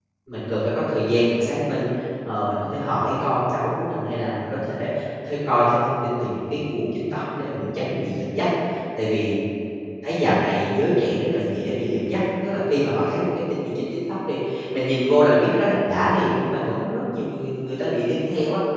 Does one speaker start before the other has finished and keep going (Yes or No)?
No